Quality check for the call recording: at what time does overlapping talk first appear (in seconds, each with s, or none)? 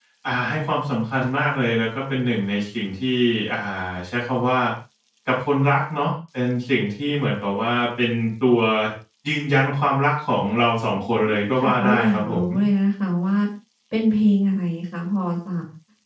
11.1 s